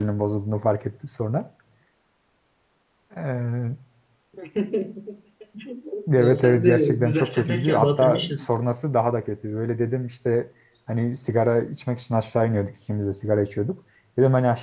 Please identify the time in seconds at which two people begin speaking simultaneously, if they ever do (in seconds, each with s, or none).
6.2 s